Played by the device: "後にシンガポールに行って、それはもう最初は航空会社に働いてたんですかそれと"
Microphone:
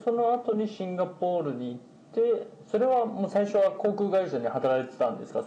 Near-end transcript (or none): none